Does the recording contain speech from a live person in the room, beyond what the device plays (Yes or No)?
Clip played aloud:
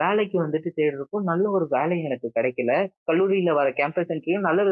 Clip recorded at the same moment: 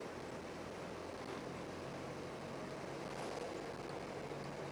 No